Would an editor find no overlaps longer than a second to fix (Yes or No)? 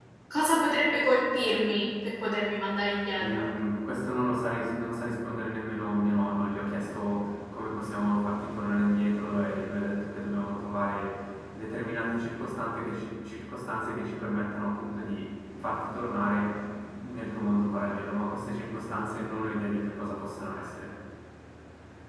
Yes